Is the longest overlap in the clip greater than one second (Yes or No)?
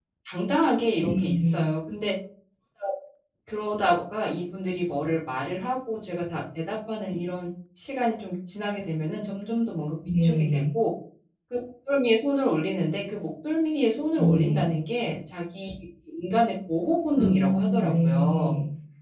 Yes